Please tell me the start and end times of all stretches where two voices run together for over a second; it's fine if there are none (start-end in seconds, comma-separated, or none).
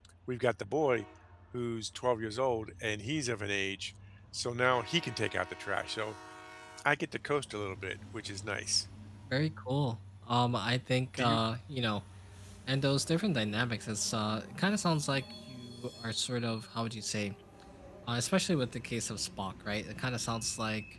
none